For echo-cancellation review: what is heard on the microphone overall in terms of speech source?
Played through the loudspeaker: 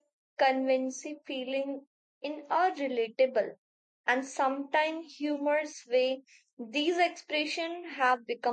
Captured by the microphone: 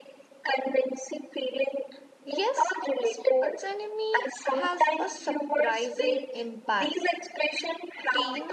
both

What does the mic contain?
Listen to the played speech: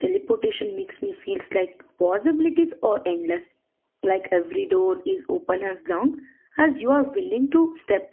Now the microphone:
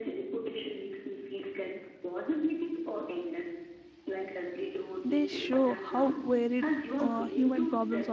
both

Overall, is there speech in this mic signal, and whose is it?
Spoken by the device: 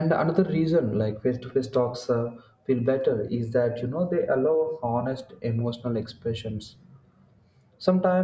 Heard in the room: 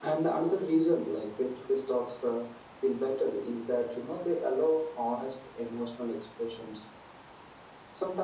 echo only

